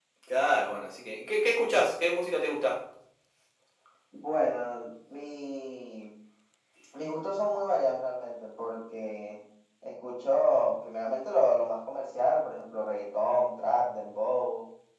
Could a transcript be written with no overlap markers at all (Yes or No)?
Yes